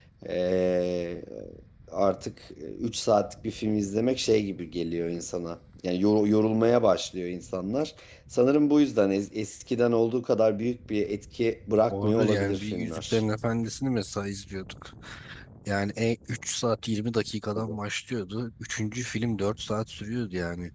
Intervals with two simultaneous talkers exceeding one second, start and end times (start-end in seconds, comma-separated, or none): 11.9-13.2